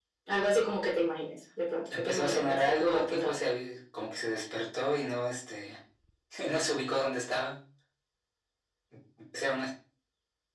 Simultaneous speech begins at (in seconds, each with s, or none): 1.9 s